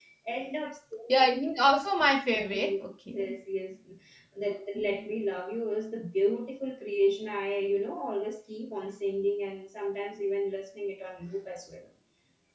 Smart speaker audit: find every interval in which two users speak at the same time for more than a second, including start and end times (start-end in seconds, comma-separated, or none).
none